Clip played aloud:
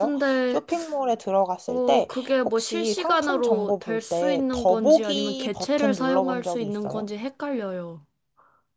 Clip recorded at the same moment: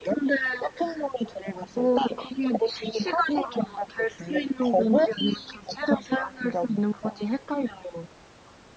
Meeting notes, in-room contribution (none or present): none